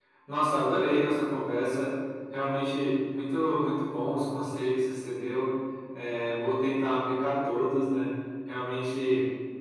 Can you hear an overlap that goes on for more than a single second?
No

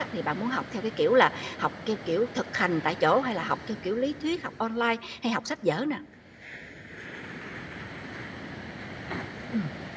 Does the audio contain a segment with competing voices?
No

